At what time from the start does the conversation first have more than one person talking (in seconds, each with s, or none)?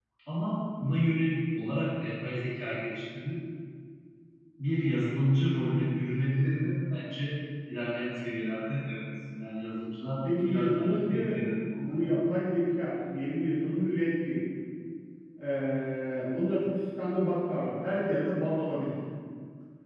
10.5 s